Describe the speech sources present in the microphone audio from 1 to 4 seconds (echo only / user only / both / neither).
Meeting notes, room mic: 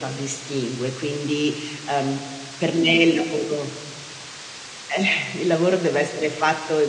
echo only